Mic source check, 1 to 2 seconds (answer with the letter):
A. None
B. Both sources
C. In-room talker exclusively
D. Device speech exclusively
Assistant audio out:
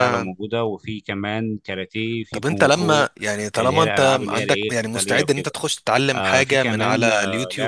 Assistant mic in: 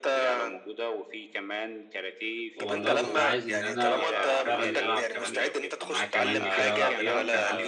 D